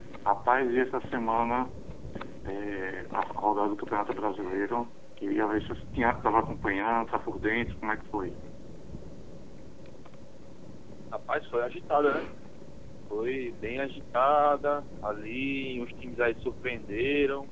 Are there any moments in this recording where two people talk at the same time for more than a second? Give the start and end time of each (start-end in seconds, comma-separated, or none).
none